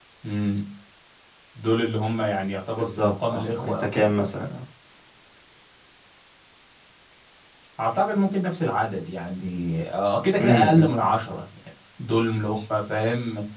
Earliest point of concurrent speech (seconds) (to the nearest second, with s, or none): 3 s